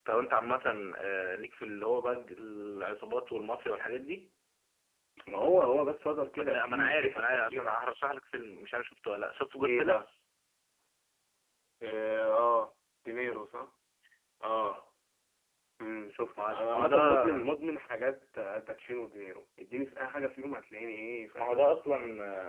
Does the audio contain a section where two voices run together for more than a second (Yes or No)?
Yes